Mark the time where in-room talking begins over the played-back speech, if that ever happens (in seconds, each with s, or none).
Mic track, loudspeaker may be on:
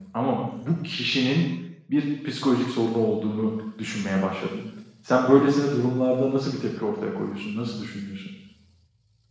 none